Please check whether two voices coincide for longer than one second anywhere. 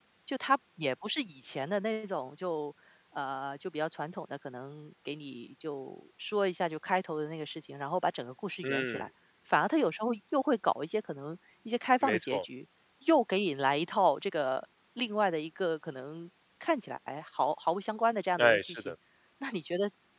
No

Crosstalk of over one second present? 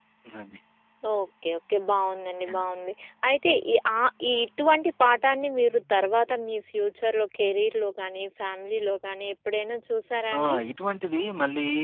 No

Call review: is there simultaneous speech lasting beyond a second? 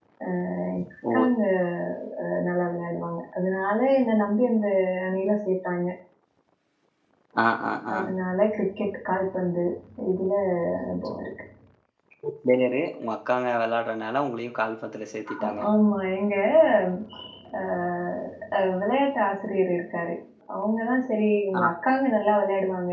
No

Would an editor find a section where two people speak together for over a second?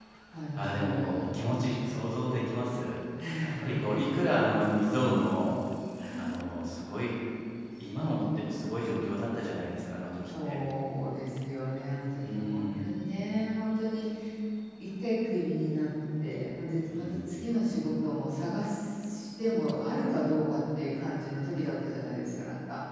Yes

